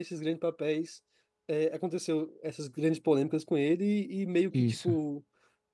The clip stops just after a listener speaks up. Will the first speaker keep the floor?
Yes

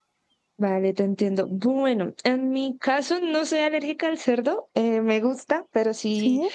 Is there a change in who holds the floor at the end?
No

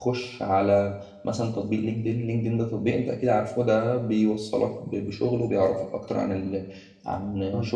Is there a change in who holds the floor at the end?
No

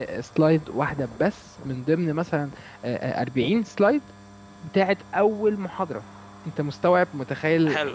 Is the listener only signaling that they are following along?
No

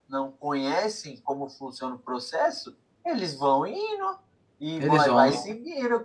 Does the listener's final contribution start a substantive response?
No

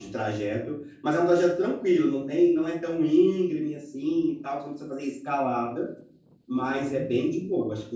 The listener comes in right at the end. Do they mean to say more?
No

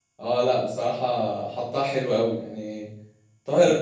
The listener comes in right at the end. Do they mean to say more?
No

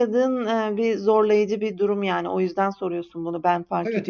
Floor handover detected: Yes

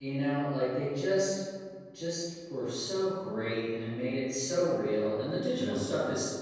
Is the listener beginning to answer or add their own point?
No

